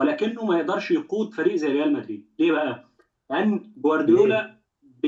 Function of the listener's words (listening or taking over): listening